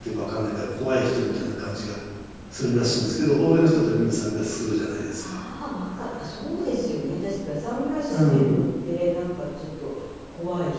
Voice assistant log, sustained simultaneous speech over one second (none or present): none